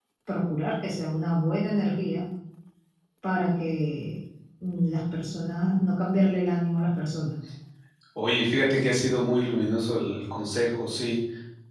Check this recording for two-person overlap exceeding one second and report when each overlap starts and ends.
none

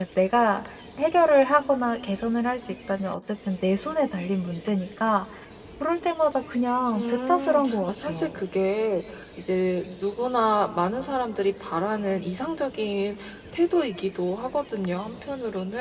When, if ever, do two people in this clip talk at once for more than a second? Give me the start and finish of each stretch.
6.9-8.4

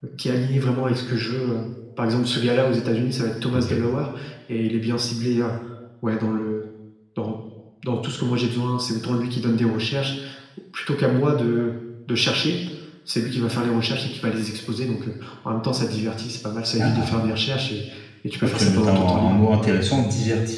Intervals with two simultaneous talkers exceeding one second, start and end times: 18.4-19.7

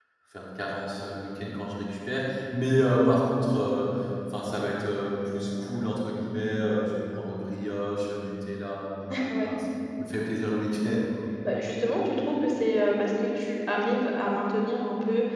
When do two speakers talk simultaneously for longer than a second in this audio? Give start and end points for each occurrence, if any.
none

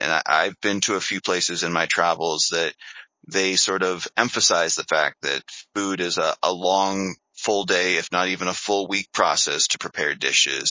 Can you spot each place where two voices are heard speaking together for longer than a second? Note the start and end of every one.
none

